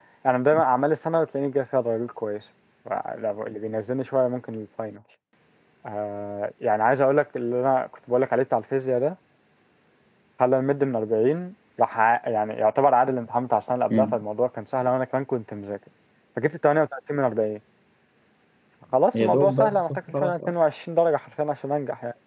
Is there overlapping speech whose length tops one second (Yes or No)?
Yes